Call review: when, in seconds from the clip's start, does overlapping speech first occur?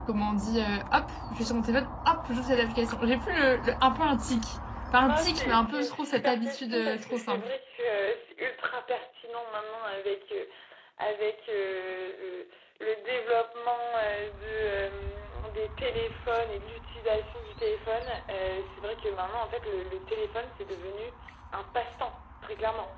5.1 s

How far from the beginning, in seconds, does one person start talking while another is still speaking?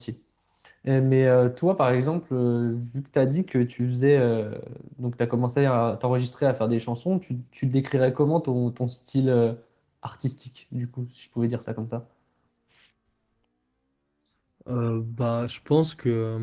none

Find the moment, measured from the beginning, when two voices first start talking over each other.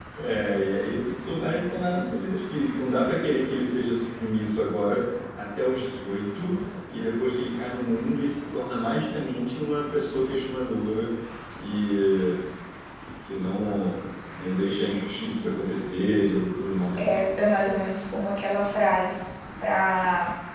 none

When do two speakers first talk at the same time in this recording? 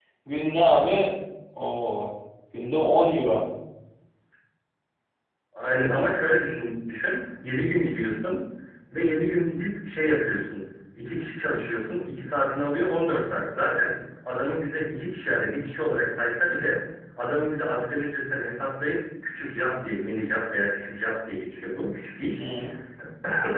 none

